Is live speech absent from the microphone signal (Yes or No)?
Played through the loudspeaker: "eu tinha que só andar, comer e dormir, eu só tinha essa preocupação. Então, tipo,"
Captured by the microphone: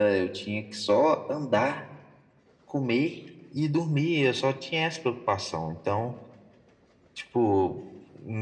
Yes